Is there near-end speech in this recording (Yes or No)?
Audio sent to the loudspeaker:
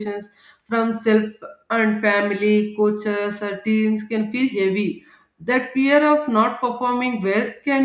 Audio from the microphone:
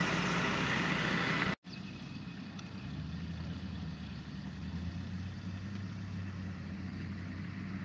No